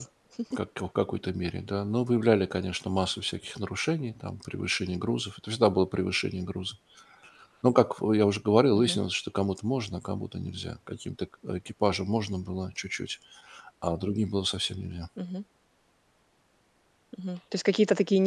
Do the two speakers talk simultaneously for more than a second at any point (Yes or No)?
No